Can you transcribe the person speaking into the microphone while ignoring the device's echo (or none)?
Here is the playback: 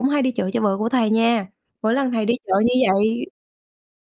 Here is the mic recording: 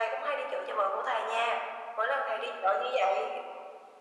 none